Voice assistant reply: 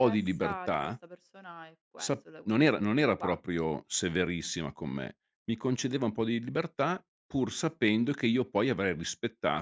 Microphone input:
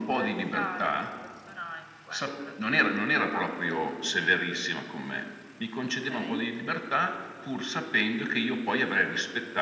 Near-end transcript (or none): Okay.